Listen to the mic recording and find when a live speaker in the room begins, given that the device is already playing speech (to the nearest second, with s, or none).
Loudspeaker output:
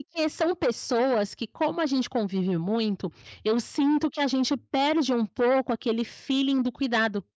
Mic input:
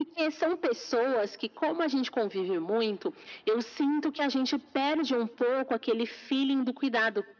none